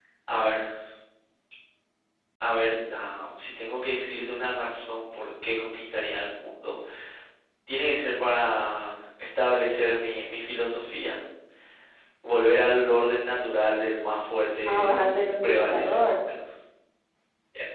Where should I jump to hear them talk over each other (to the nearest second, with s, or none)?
15 s